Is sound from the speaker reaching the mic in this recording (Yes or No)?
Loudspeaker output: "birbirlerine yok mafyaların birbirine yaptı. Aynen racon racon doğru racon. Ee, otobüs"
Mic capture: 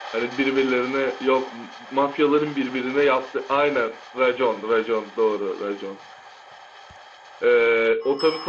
Yes